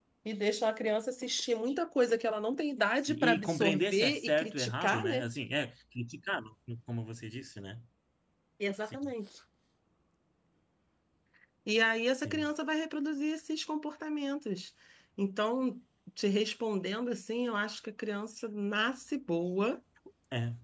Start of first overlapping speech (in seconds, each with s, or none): 3.0 s